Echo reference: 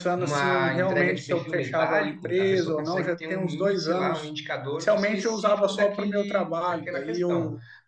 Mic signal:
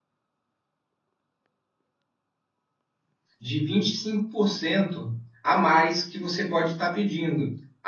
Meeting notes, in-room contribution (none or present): present